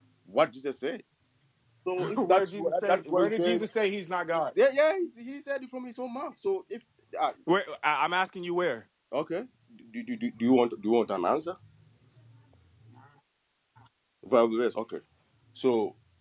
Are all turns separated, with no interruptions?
No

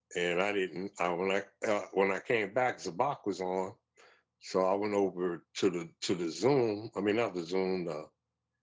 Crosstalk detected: No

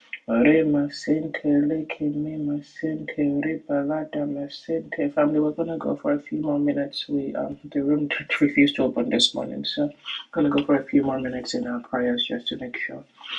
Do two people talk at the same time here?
No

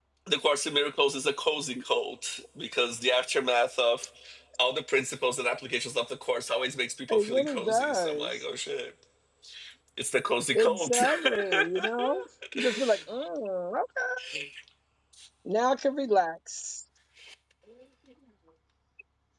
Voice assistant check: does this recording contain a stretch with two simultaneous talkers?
Yes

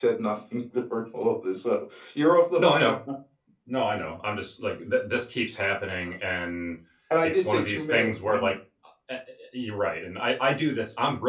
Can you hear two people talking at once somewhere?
Yes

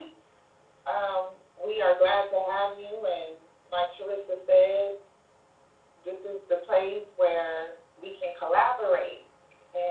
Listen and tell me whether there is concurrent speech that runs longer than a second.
No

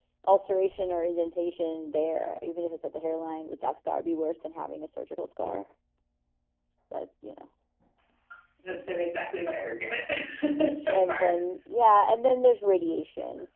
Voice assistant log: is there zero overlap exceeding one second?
Yes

